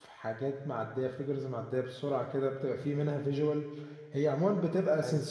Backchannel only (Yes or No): Yes